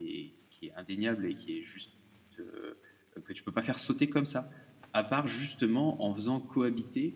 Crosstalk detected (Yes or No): No